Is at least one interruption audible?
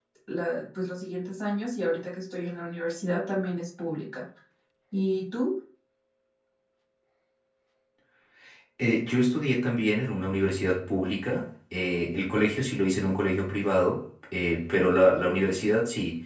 No

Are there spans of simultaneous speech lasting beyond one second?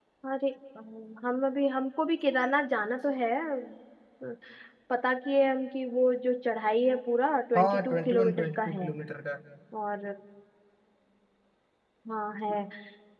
Yes, from 7.5 s

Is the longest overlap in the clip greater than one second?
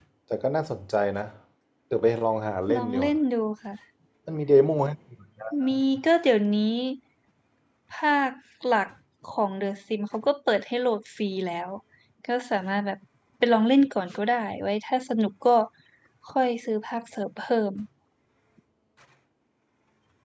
No

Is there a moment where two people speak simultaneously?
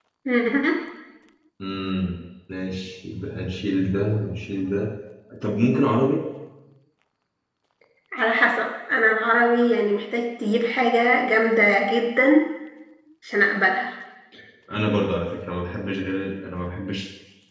No

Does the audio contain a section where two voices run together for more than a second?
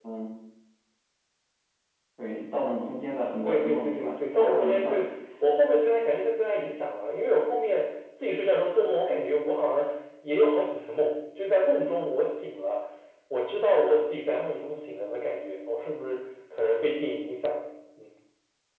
Yes, from 3.4 s

